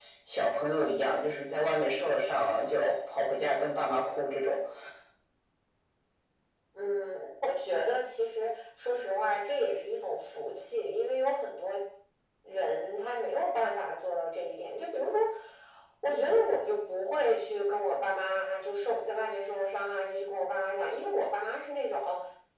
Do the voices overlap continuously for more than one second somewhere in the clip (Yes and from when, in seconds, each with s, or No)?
No